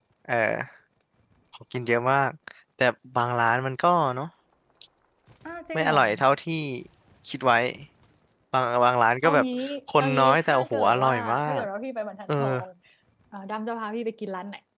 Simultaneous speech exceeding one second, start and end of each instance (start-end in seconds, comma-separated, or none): 10.0-11.6